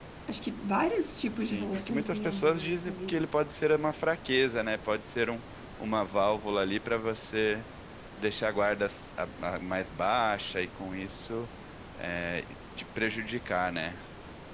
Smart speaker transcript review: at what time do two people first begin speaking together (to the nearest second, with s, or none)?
1 s